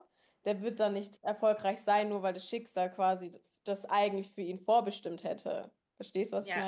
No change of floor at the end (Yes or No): No